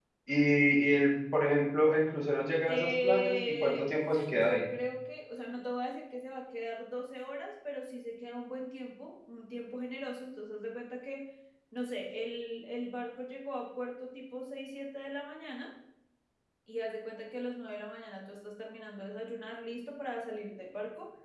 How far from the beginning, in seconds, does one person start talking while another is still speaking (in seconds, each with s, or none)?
2.7 s